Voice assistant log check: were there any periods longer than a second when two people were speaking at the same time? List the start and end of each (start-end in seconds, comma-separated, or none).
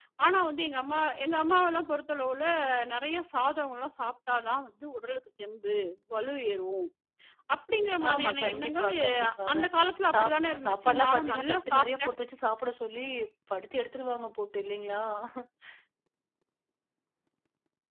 8.1-9.6, 10.1-12.1